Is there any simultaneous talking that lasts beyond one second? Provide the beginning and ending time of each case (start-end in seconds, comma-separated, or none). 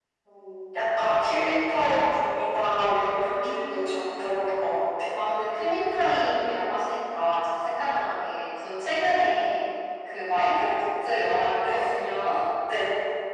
2.8-4.3